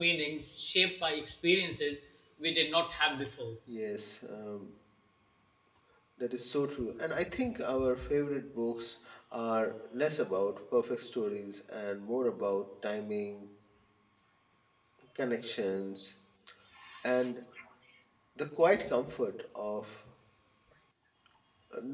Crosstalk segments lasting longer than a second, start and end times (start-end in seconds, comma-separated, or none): none